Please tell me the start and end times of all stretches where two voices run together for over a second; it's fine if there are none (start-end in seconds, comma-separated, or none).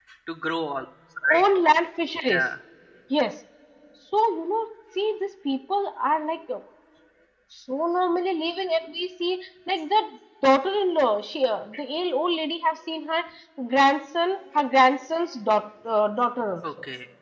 none